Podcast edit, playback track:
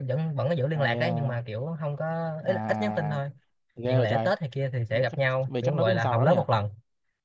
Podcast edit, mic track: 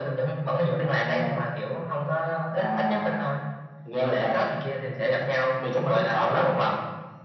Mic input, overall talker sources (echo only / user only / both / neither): echo only